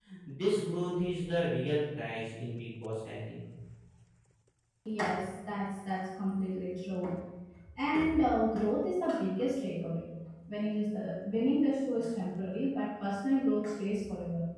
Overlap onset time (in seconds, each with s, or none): none